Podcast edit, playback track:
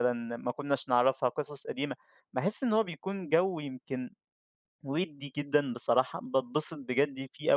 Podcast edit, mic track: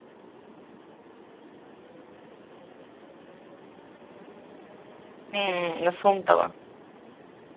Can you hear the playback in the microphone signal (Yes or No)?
No